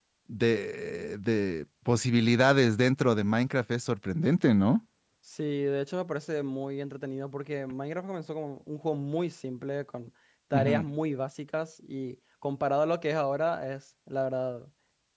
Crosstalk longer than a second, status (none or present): none